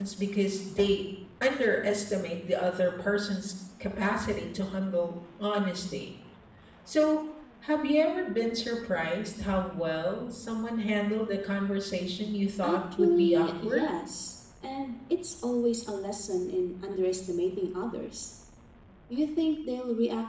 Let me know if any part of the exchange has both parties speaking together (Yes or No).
Yes